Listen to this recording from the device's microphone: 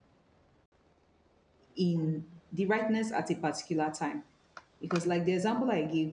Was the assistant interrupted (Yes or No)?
Yes